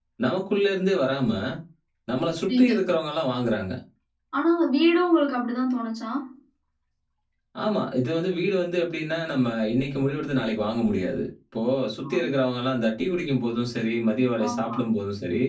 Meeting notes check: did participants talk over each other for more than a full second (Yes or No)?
No